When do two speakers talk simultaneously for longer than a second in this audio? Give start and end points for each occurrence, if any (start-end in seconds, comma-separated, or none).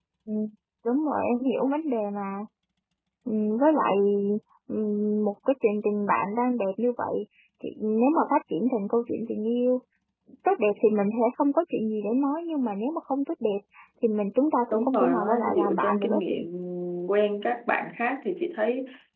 14.7-16.4